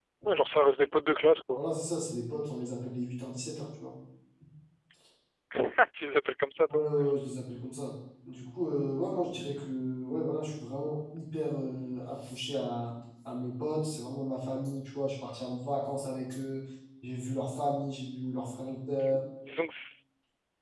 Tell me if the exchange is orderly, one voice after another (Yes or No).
Yes